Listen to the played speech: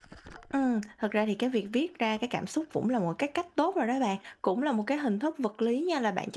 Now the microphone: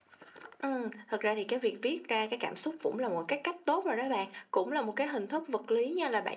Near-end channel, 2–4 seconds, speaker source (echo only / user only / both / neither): echo only